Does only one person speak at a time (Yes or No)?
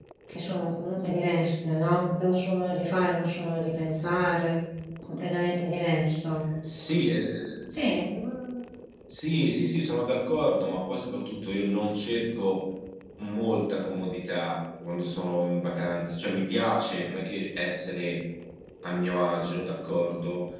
Yes